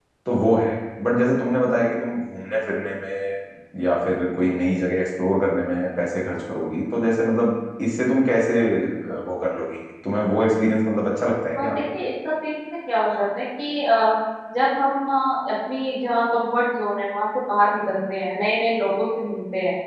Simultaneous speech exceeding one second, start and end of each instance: none

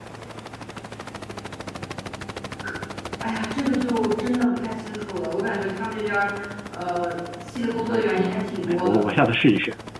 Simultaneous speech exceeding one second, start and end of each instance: 7.7-9.1

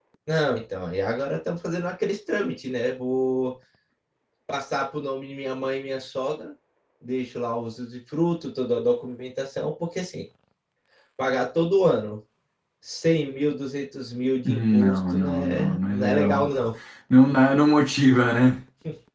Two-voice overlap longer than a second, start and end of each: 14.4-16.4

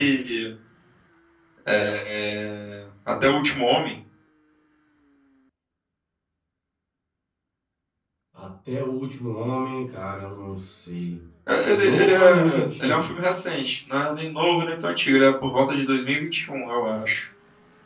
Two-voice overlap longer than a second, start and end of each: 11.7-13.1

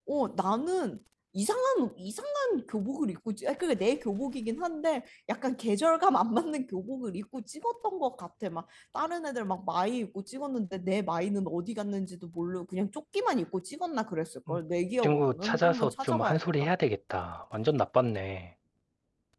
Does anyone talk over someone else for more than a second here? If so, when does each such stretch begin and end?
15.0-16.7

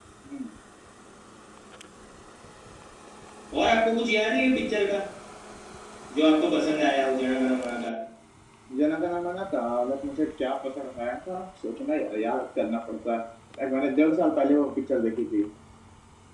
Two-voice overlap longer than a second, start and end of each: none

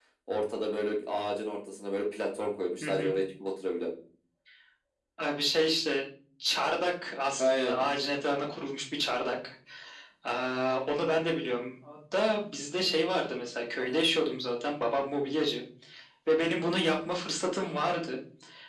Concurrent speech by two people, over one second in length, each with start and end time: none

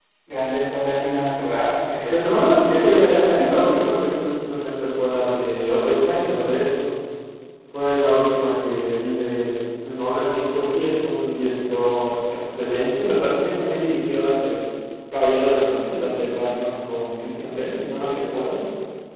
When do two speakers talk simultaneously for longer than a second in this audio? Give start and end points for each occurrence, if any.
2.0-3.9

